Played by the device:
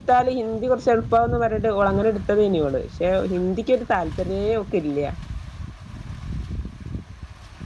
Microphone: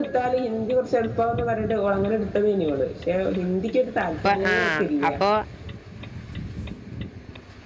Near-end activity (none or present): present